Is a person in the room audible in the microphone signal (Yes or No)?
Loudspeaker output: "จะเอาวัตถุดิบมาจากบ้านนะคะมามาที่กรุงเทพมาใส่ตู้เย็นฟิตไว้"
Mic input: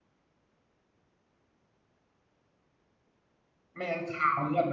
Yes